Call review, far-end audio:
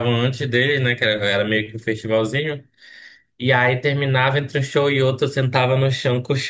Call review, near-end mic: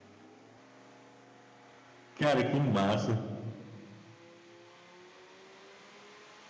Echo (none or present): none